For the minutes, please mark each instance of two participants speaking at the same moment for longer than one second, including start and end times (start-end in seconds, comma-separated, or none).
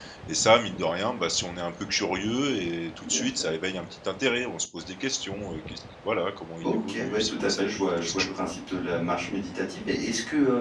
6.6-8.5